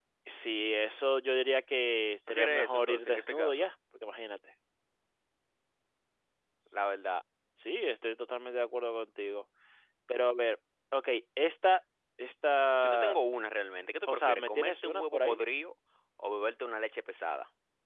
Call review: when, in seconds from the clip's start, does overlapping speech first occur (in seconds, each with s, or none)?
2.3 s